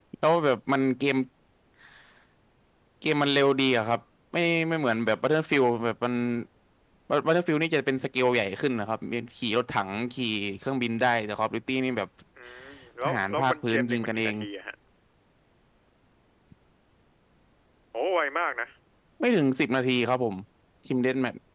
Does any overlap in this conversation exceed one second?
Yes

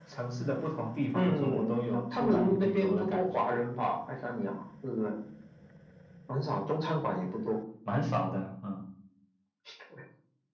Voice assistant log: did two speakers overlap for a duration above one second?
Yes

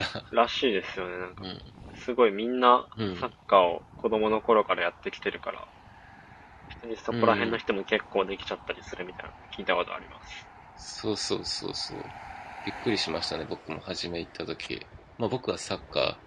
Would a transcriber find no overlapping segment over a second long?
Yes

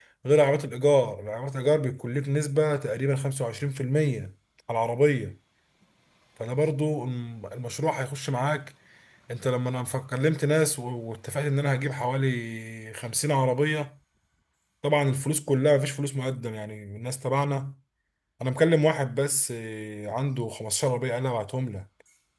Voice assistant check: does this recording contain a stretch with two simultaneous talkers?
No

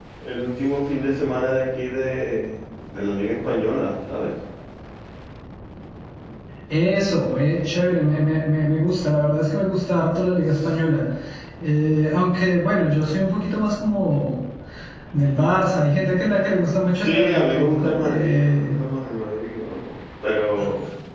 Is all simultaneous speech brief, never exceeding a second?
No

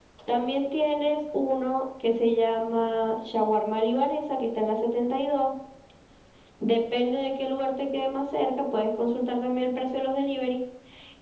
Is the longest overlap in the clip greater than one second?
No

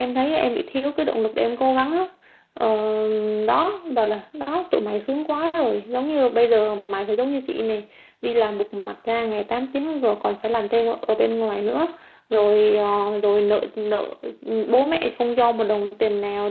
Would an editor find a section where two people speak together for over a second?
No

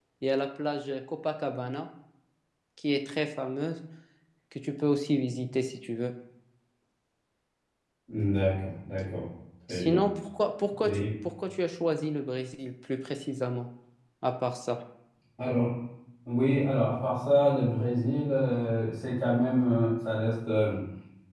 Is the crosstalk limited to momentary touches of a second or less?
Yes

